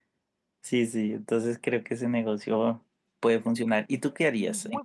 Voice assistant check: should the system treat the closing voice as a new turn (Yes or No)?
Yes